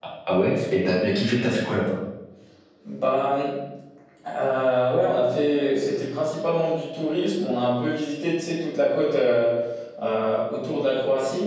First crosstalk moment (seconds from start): none

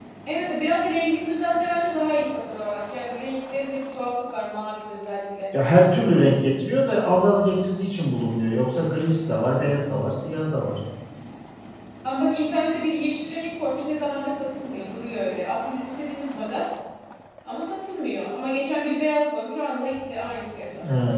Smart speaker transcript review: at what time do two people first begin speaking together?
none

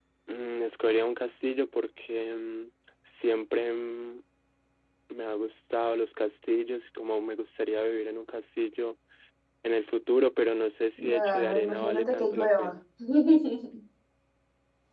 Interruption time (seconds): 11.0 s

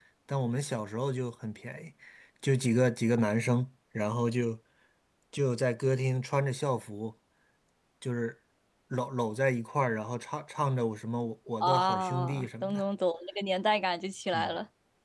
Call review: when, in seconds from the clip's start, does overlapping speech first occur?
11.6 s

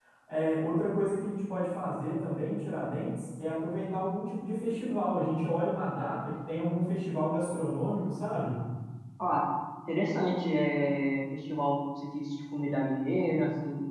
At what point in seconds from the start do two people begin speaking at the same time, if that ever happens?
none

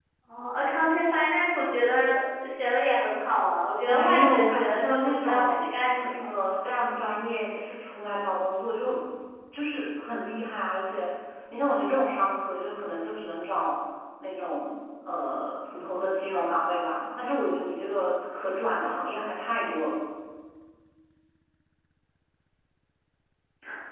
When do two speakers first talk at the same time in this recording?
3.9 s

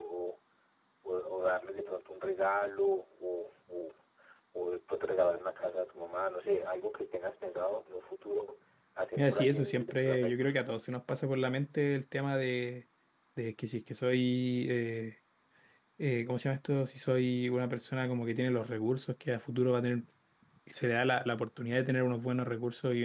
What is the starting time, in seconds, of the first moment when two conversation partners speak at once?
9.2 s

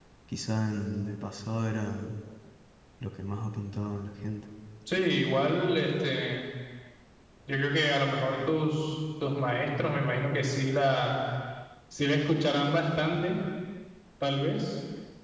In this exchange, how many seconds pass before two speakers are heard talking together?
none

